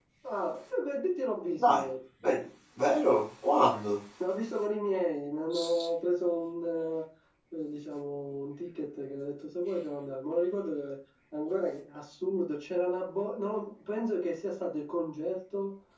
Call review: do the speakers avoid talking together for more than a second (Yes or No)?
Yes